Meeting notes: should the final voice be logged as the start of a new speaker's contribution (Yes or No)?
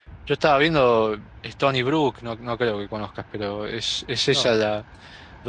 No